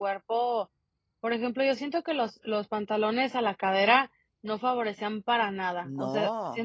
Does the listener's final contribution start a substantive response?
No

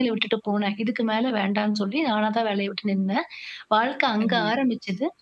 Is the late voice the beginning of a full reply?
No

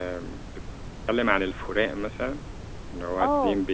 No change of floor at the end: No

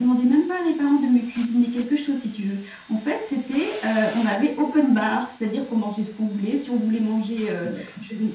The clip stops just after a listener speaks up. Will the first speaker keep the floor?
Yes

